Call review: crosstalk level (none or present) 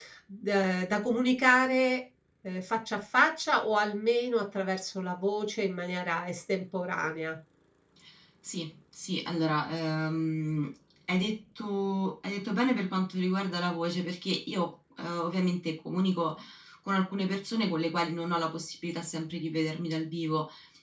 none